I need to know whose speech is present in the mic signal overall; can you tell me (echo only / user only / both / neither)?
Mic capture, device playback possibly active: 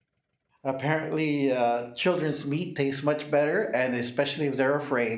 user only